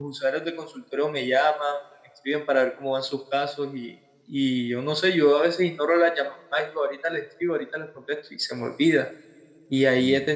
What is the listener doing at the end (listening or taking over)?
listening